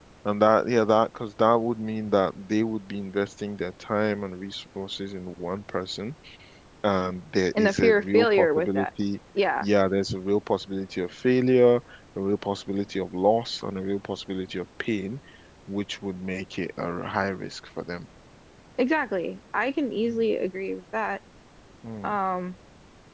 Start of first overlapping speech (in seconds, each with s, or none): 7.5 s